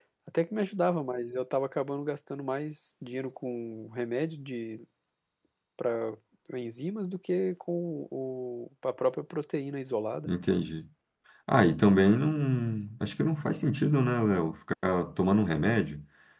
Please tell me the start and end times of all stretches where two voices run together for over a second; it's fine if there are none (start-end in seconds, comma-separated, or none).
none